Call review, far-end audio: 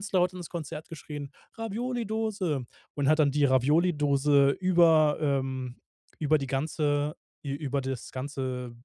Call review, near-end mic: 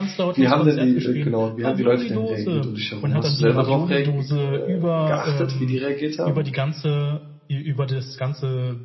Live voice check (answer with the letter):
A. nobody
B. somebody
B